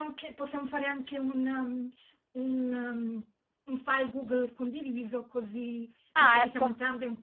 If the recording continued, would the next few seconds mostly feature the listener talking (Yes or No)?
No